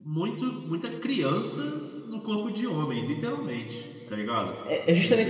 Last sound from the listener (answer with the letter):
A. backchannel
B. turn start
B